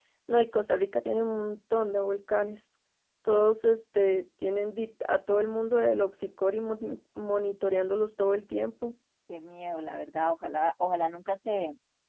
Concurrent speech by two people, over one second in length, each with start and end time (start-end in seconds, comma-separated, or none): none